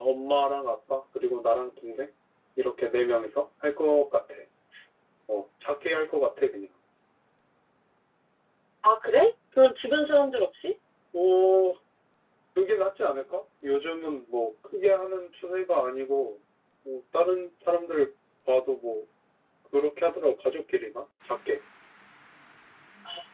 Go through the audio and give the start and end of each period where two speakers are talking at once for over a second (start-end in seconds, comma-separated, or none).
none